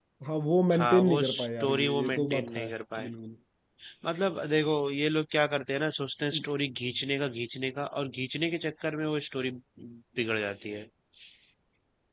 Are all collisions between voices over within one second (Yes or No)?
No